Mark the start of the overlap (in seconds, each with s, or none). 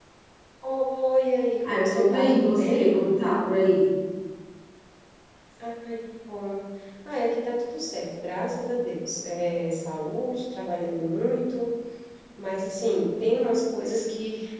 1.6 s